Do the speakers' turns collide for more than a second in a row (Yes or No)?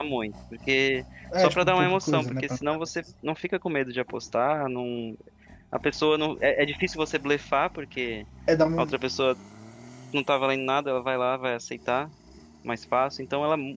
Yes